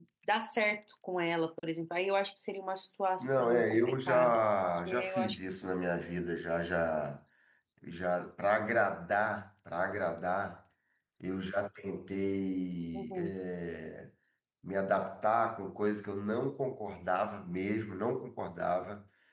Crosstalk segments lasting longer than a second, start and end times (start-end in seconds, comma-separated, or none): 3.2-5.4